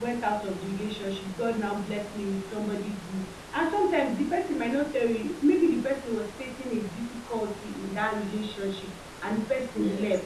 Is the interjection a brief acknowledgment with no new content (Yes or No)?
Yes